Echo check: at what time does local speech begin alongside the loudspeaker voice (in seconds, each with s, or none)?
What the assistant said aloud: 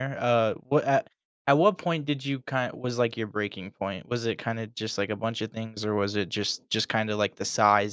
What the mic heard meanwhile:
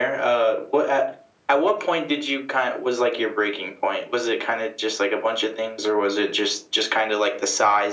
none